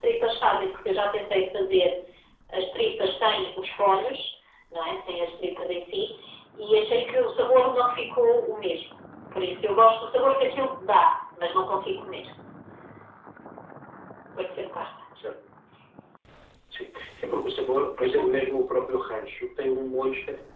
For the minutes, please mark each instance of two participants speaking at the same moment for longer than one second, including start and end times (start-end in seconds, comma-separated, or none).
none